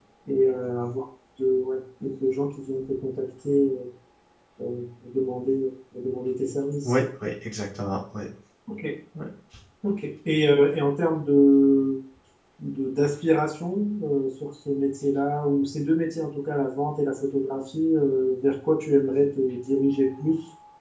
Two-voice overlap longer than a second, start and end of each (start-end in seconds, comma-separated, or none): none